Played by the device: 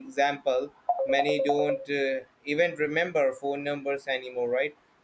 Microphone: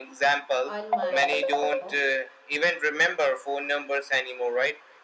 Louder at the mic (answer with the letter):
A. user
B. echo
B